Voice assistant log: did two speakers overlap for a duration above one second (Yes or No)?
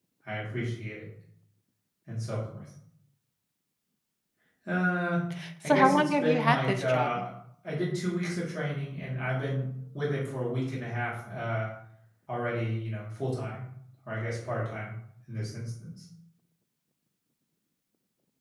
Yes